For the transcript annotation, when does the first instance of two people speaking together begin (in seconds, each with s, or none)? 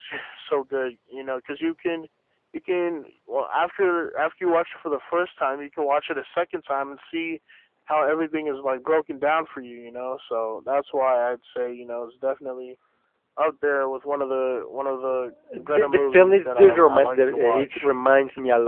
15.5 s